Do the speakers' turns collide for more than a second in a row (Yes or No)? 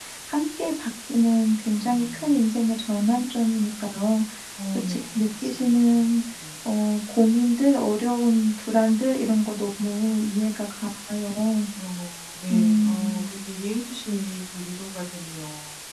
Yes